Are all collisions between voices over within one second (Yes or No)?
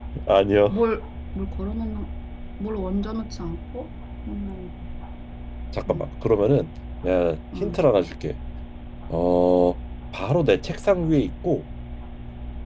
Yes